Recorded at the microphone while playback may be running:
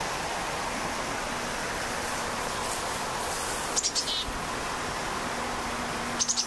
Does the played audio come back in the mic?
No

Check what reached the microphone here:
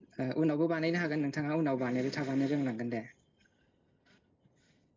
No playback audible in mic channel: Yes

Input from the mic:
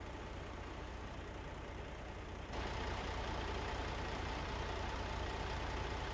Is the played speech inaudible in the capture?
Yes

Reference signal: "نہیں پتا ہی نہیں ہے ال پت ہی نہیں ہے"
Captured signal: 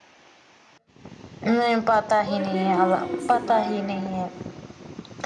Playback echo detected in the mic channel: Yes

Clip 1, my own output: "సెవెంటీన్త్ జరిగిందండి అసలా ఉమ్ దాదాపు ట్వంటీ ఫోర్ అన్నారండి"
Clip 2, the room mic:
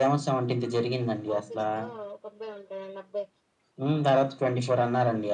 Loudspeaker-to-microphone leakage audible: Yes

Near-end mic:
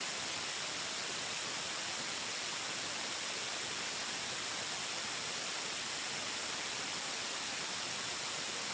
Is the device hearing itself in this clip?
No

